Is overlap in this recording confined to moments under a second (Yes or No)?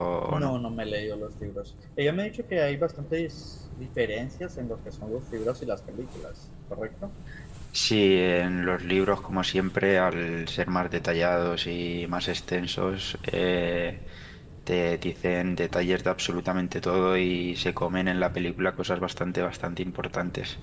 Yes